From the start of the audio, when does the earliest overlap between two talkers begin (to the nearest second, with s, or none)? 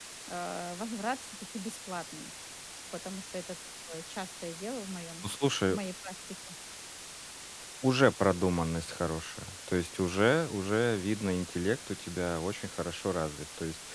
none